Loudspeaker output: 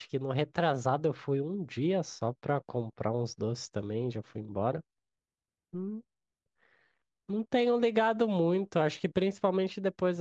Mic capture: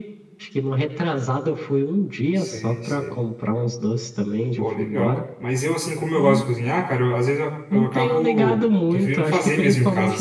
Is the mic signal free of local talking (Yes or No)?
No